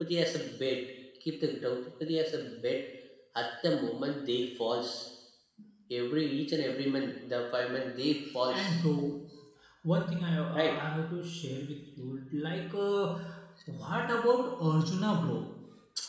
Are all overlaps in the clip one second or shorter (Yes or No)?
Yes